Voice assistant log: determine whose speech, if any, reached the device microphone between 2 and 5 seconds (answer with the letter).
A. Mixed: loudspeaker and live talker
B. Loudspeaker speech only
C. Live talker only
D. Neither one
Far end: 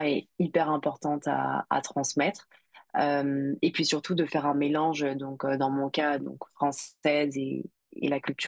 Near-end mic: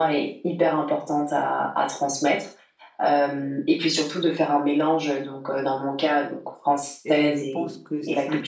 B